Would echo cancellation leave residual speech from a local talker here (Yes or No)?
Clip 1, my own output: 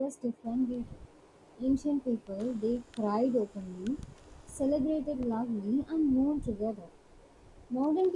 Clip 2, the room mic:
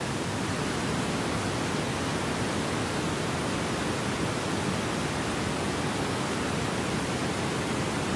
No